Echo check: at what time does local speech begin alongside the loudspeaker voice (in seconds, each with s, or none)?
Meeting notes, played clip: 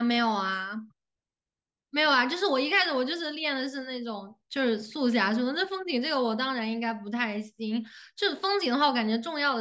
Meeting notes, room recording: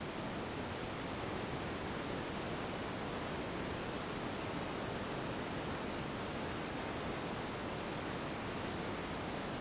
none